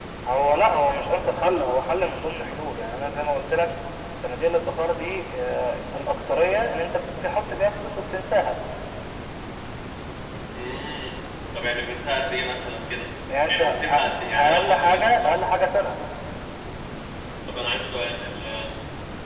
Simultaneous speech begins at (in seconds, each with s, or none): 13.3 s